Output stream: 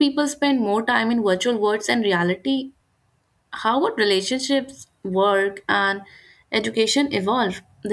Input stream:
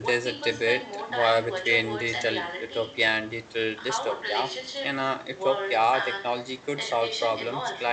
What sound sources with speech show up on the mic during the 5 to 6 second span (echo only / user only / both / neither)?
both